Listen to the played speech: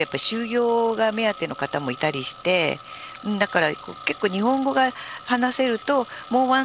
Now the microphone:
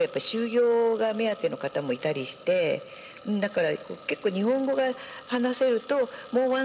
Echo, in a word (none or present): present